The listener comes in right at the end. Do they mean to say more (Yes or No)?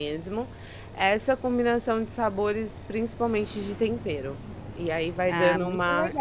Yes